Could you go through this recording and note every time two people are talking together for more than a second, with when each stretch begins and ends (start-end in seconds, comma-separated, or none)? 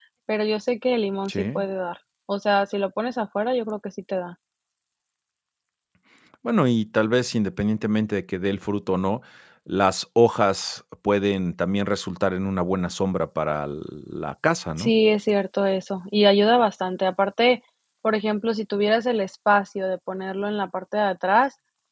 none